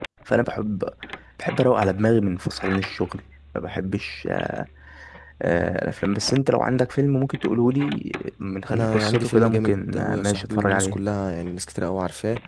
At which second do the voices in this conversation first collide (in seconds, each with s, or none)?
8.7 s